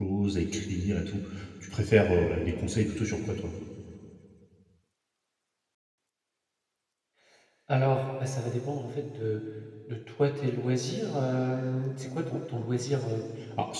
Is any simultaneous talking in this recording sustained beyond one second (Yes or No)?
No